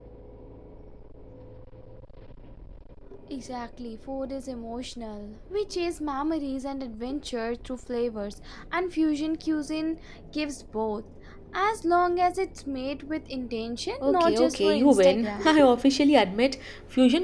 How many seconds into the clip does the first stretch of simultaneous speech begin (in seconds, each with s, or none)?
14.0 s